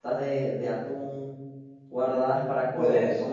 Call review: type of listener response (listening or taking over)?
listening